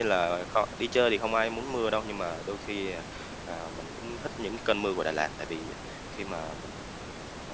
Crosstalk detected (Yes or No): No